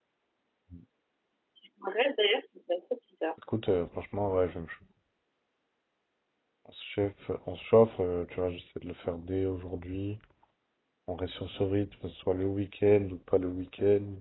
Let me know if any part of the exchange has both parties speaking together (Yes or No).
No